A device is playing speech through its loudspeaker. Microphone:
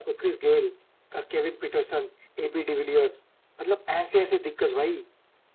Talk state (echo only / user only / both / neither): echo only